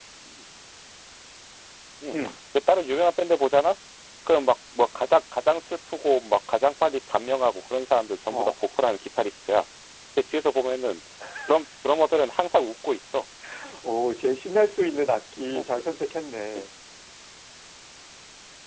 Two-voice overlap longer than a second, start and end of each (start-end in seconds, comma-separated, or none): none